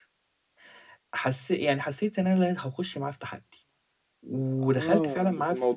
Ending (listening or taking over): taking over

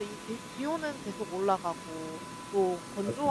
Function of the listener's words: listening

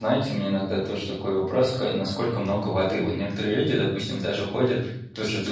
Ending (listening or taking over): listening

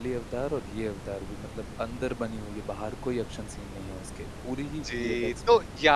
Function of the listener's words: taking over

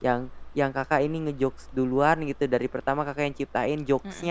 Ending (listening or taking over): listening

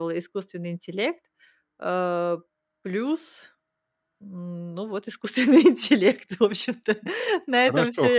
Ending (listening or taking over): taking over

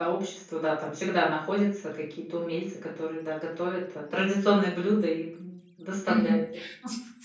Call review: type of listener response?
taking over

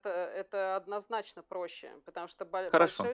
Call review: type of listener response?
listening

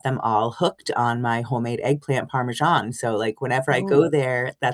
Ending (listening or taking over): listening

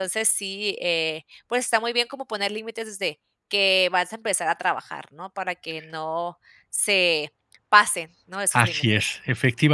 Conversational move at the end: taking over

